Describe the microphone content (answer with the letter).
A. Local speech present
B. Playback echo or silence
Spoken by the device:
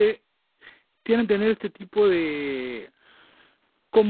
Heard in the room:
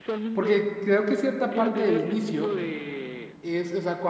A